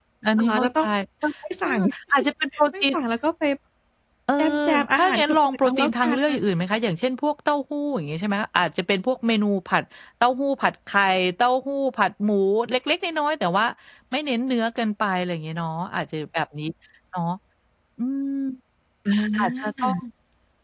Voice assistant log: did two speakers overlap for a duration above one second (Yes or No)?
Yes